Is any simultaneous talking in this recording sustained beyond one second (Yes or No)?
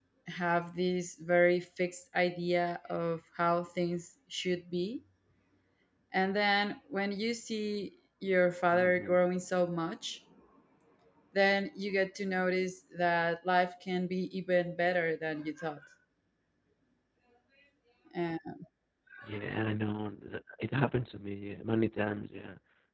No